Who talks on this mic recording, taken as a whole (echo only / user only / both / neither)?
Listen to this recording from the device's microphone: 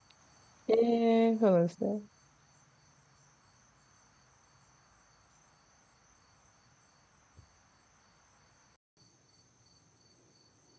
user only